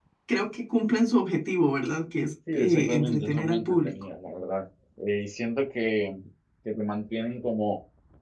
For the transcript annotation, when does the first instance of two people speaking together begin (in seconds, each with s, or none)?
2.5 s